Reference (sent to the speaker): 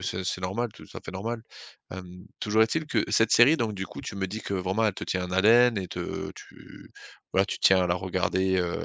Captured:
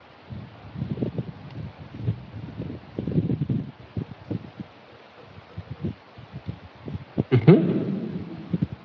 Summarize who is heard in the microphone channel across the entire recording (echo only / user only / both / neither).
user only